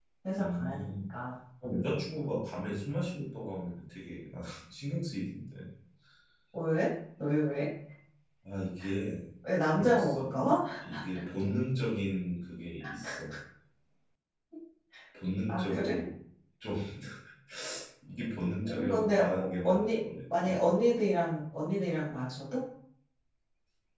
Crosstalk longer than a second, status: present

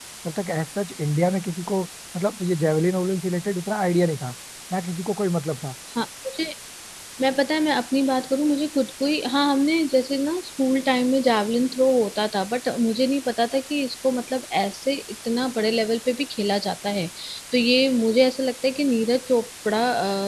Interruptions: none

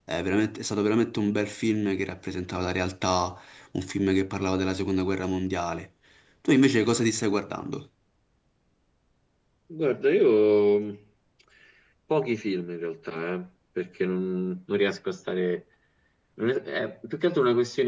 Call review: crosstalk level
none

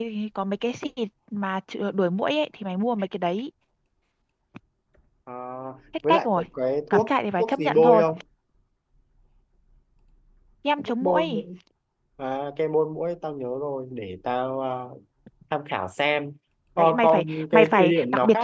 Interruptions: present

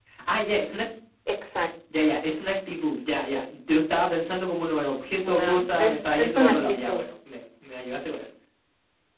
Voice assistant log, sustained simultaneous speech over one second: present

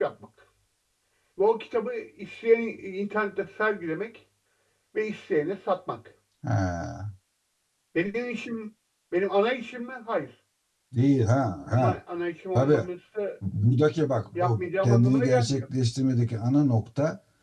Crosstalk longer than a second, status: present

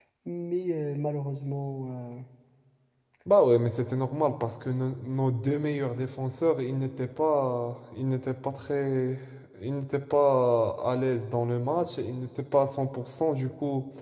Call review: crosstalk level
none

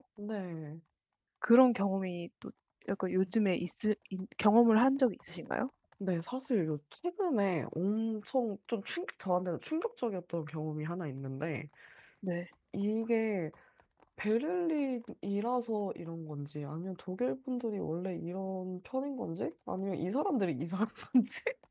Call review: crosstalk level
none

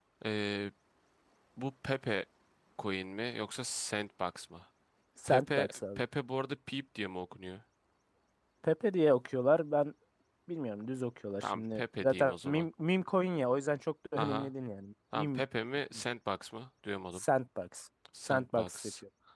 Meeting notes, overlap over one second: present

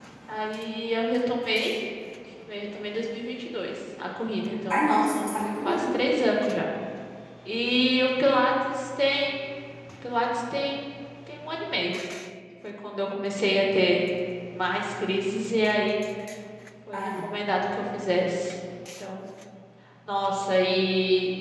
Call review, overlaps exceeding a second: present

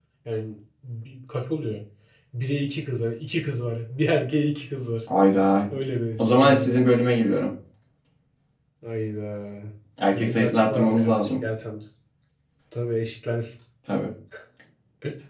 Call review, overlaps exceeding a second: present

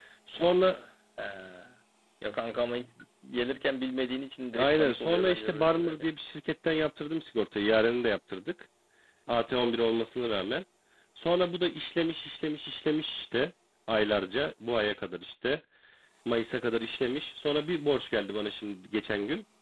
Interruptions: present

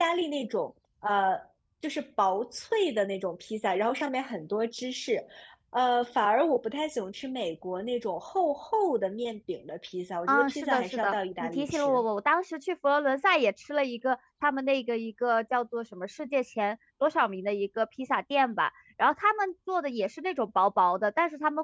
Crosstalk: present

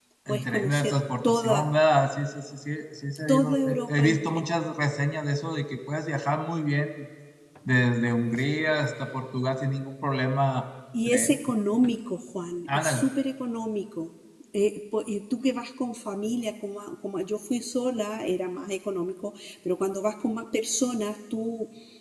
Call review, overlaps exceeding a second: present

